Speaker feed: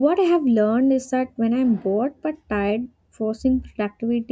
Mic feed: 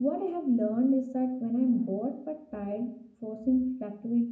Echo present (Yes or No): Yes